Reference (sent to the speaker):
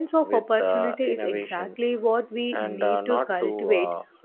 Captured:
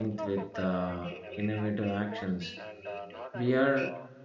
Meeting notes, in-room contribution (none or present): present